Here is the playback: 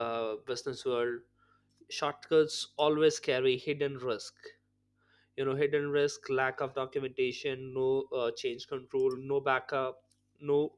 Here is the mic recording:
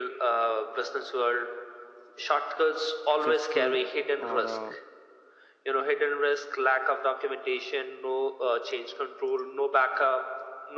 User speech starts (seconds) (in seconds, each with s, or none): 3.1 s